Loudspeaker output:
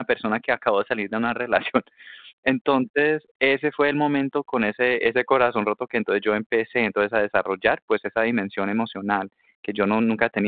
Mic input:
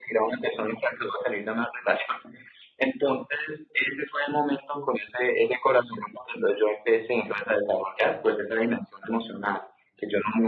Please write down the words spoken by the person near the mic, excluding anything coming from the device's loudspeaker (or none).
none